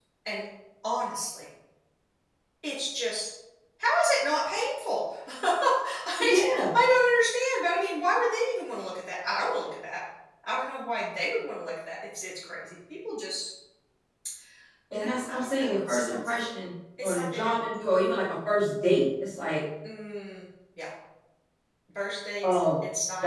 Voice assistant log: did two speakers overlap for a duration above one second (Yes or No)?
Yes